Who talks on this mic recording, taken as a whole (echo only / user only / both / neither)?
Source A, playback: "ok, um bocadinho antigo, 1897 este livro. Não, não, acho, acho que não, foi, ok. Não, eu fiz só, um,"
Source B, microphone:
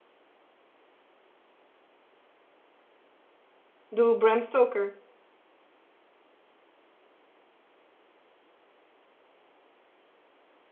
user only